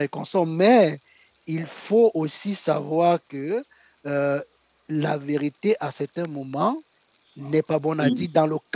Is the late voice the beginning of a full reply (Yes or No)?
No